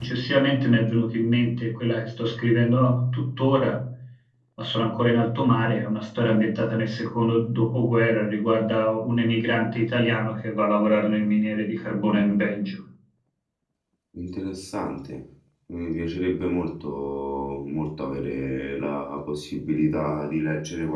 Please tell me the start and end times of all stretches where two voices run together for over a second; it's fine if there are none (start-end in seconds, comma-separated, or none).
none